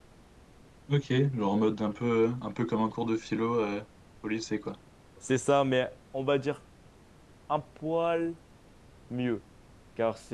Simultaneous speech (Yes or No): No